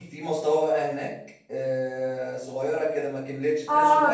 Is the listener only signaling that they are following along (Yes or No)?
No